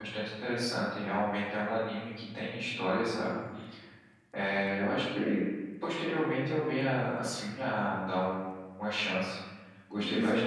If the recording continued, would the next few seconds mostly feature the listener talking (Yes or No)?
Yes